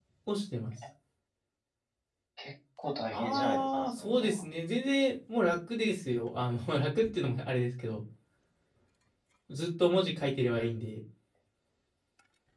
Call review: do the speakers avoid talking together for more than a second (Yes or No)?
No